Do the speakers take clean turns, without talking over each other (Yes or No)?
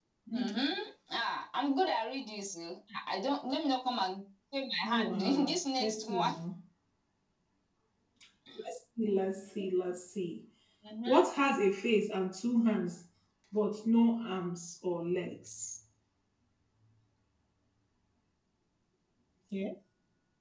No